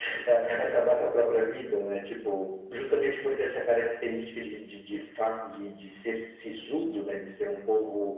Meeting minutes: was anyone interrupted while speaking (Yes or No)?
No